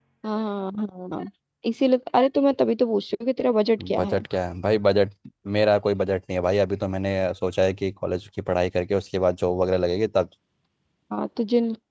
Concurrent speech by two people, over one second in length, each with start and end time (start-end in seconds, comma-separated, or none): none